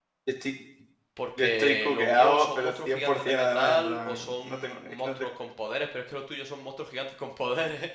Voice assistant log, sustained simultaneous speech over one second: present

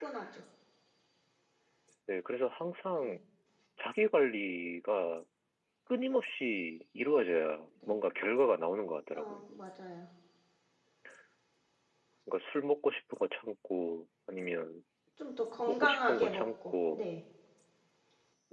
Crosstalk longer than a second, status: present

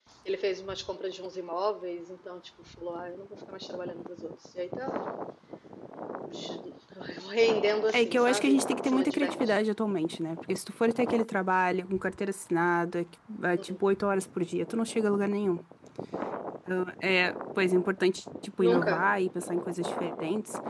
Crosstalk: present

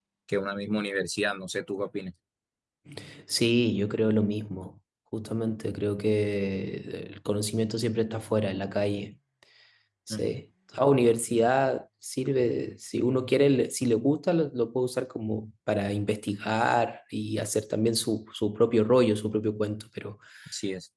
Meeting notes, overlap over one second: none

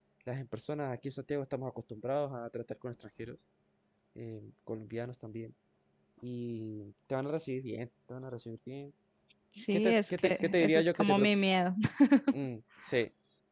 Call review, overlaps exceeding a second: present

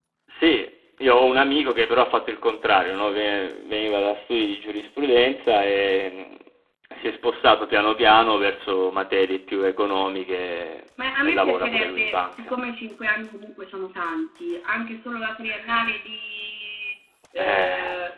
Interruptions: present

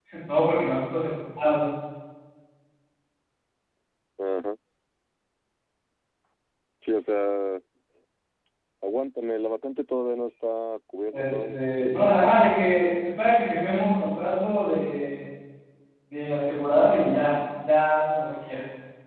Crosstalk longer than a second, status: present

